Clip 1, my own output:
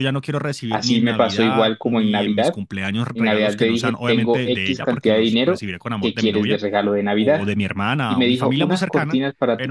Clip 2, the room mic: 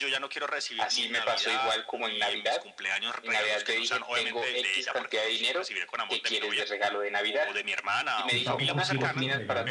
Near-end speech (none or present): present